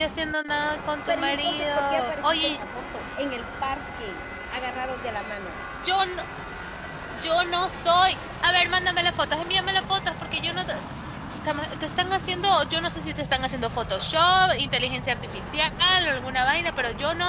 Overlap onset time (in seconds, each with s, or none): 1.1 s